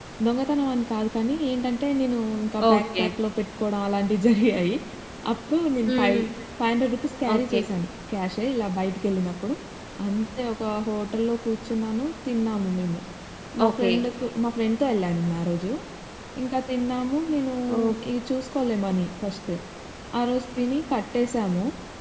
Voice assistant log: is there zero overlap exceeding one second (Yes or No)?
Yes